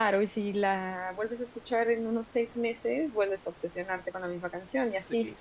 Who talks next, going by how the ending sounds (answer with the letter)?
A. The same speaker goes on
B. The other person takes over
B